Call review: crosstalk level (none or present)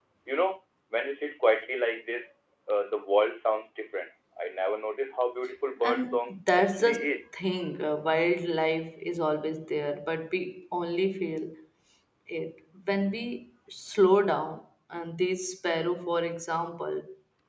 present